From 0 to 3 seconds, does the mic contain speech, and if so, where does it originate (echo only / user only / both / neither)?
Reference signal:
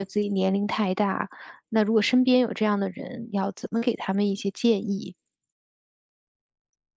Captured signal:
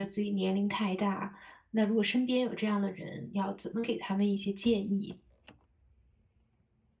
echo only